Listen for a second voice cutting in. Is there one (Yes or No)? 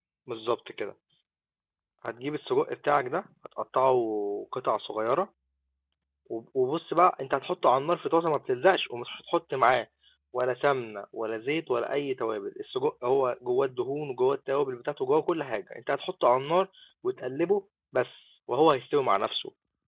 No